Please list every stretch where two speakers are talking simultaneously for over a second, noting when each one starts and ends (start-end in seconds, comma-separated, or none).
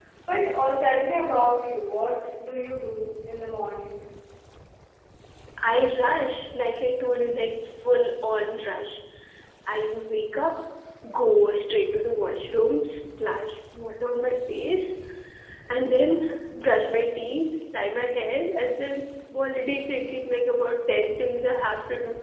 none